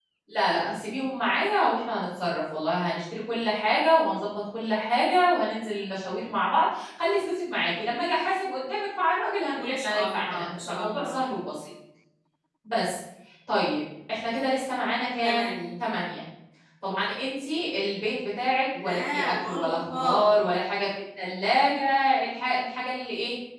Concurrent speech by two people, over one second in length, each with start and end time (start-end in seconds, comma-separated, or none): 9.6-11.2, 18.8-20.6